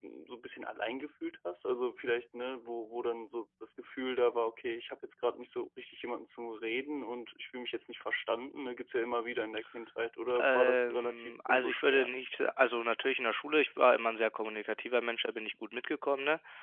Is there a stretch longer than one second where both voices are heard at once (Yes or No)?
Yes